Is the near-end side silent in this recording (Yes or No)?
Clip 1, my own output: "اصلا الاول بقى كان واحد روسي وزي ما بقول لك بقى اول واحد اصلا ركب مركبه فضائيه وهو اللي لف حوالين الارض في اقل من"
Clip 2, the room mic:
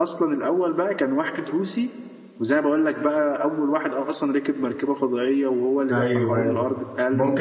No